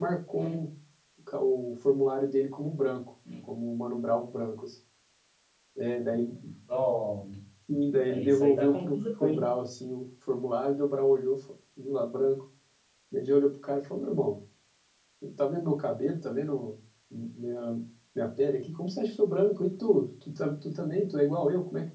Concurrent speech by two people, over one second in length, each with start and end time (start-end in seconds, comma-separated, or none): 8.1-9.5